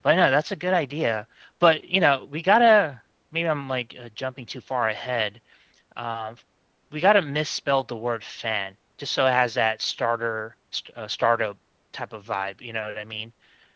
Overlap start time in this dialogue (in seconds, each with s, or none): none